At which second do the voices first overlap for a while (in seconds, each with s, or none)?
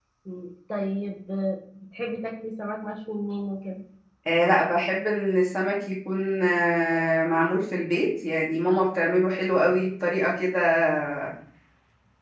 none